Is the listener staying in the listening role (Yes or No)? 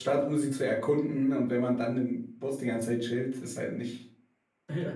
No